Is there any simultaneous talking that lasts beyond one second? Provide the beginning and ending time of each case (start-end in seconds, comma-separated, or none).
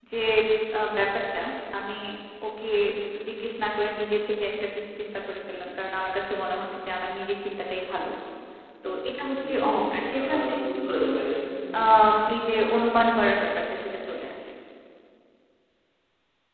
9.5-11.0